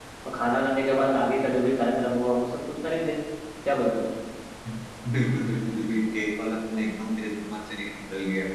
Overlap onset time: none

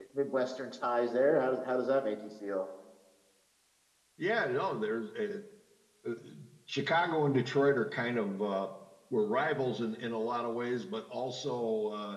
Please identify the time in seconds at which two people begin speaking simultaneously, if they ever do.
none

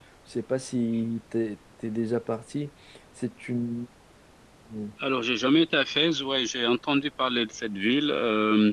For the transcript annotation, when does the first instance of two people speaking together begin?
none

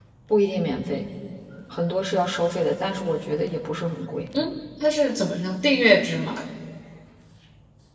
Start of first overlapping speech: none

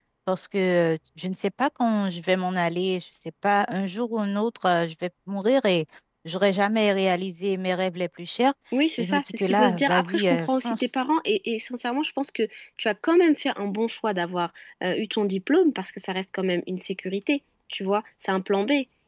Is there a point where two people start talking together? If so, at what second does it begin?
9.0 s

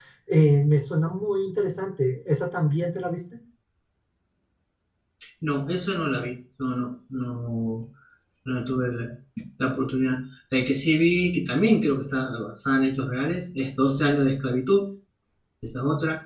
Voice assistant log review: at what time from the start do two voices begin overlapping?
none

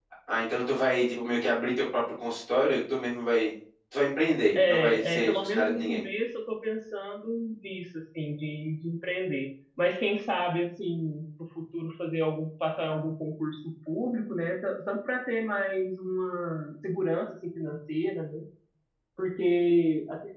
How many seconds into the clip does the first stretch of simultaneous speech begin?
4.6 s

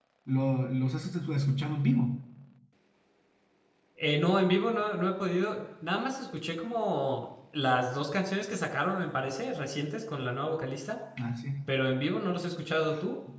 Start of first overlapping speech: none

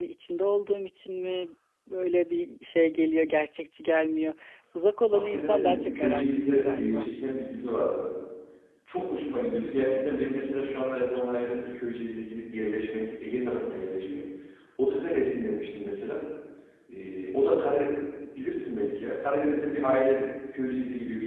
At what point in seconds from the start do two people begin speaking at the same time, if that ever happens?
5.1 s

